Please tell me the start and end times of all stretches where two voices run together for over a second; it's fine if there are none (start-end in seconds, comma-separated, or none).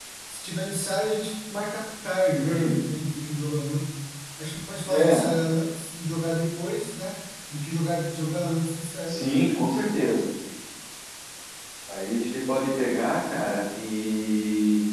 none